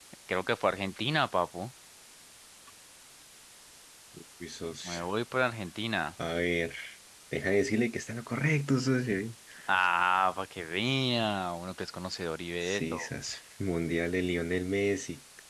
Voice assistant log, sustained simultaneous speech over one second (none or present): none